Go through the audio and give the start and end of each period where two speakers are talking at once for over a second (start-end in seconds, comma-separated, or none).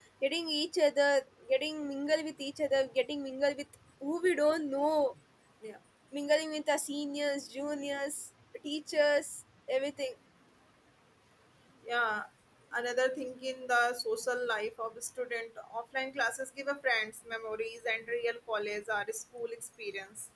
none